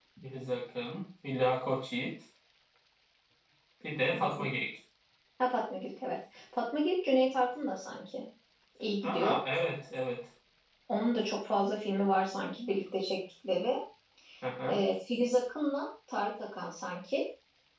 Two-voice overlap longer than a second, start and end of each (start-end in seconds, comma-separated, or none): none